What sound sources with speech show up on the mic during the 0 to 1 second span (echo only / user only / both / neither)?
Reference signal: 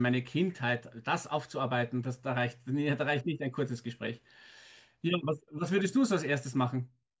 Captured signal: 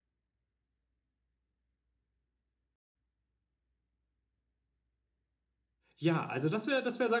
neither